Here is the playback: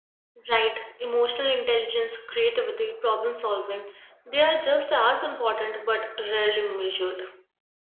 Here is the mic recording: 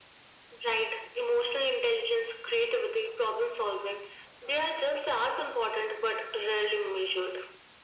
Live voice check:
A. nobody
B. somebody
A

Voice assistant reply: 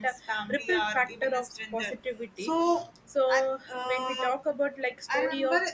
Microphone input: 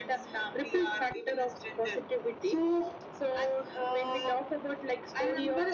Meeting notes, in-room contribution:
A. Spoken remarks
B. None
B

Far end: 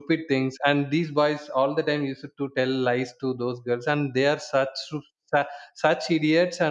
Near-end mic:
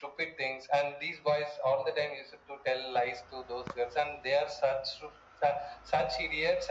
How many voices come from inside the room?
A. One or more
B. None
B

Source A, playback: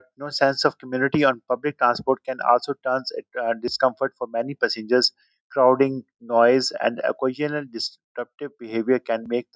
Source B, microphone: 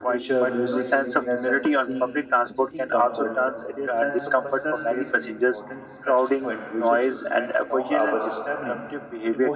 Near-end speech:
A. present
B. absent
A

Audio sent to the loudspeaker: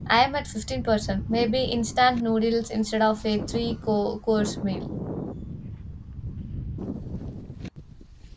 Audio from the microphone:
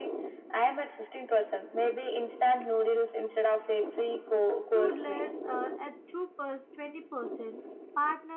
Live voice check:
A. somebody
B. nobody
A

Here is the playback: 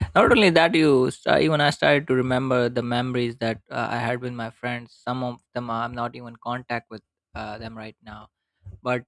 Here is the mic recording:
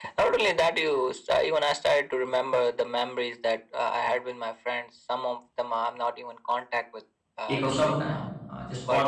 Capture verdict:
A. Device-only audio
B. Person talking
B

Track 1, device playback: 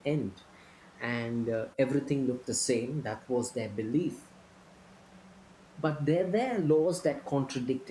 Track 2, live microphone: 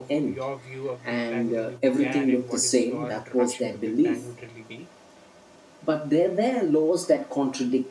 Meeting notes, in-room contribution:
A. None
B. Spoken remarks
B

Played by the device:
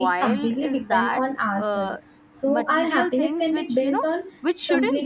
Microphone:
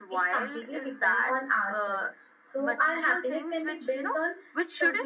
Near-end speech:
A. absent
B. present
A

